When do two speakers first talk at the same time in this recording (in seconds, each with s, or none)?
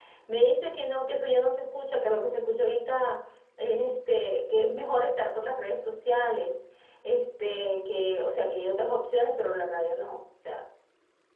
none